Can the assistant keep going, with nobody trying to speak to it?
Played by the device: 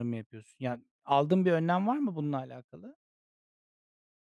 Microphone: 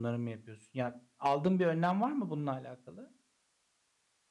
Yes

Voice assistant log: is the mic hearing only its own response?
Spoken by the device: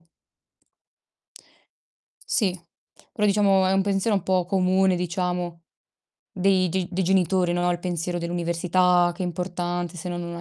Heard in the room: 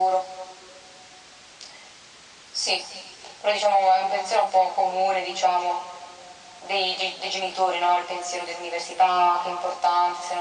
Yes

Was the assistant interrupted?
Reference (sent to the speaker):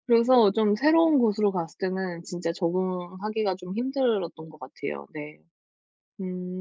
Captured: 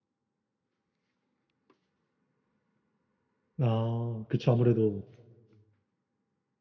Yes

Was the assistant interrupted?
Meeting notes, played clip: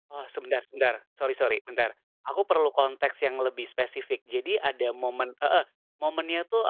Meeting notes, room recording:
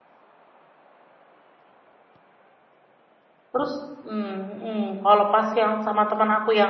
Yes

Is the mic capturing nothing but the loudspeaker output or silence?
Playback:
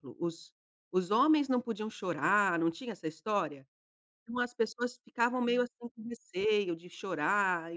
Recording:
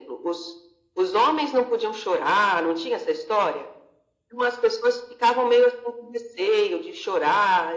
Yes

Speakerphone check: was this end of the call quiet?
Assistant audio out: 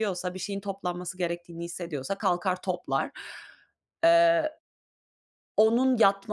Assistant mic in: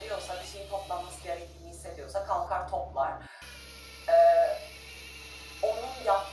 Yes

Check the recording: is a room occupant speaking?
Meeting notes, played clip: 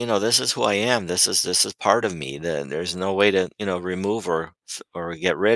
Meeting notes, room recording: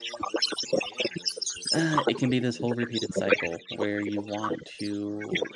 Yes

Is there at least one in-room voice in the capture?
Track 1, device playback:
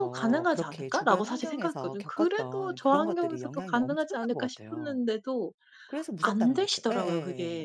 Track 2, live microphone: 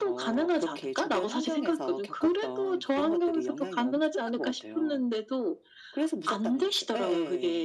No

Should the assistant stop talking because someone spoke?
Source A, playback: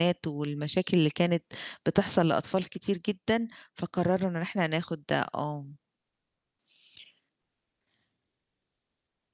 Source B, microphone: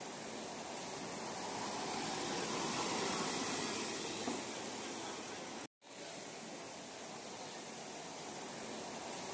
No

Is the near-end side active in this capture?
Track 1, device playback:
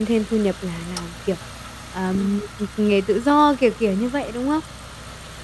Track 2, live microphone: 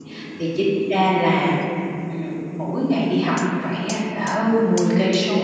Yes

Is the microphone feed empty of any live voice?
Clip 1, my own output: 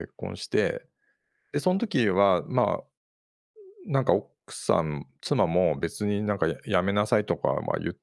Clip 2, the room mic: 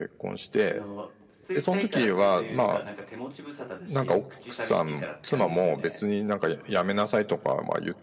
No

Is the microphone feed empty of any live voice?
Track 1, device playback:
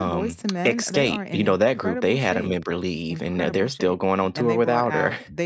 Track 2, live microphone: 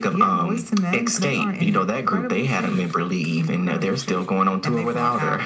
Yes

